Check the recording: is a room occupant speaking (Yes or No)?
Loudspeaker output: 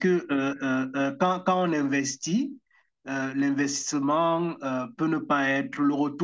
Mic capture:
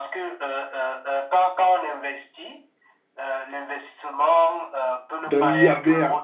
Yes